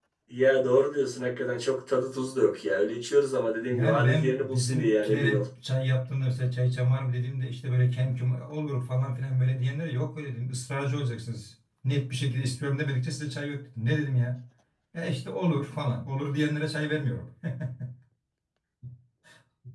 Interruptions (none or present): present